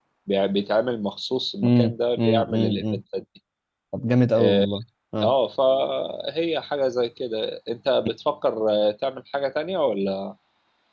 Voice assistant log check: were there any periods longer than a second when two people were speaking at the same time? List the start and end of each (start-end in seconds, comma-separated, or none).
1.6-2.9